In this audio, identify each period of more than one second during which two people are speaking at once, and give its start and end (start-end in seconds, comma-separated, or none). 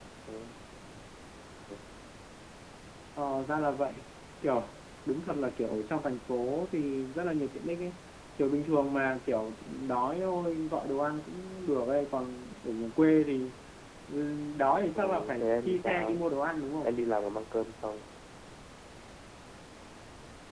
15.0-16.2